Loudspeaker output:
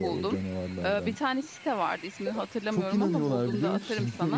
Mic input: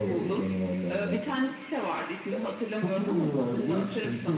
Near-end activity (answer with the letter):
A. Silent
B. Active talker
A